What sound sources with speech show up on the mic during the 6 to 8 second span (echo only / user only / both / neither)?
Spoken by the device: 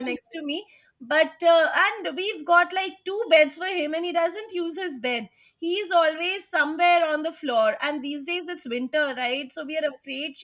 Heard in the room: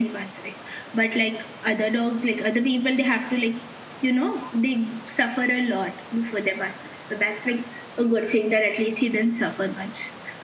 user only